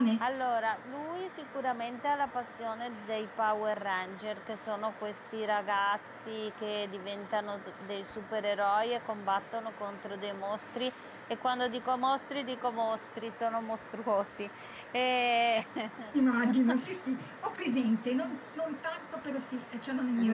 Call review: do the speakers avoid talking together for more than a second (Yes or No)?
Yes